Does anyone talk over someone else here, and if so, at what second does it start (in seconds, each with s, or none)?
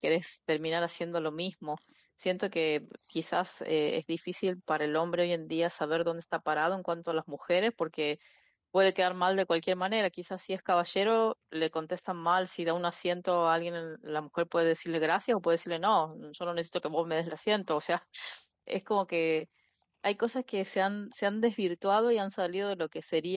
none